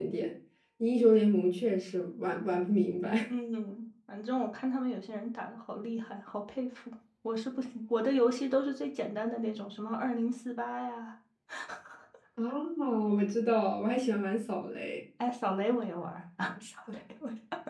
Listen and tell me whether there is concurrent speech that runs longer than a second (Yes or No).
No